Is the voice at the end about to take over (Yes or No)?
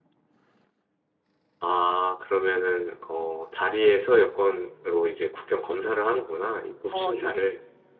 Yes